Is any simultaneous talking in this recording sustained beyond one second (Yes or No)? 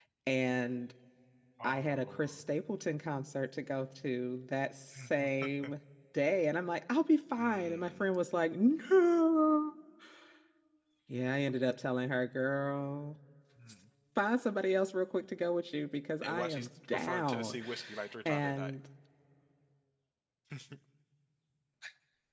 Yes